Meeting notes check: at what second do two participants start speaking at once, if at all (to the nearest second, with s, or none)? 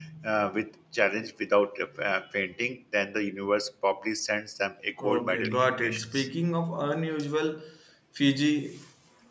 5 s